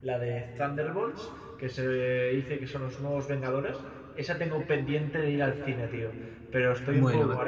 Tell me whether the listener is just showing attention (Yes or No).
Yes